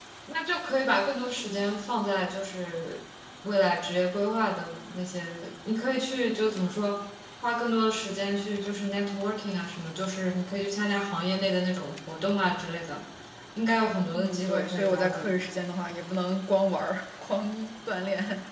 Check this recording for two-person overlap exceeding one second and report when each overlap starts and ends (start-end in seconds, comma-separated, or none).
14.1-15.4